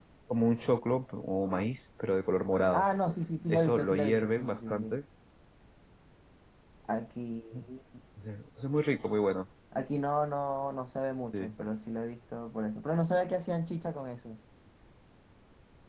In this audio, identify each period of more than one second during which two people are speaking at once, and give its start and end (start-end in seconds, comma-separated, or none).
3.5-5.0